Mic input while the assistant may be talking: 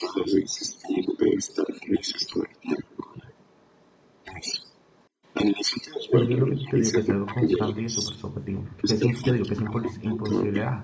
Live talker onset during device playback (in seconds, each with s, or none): 6.1 s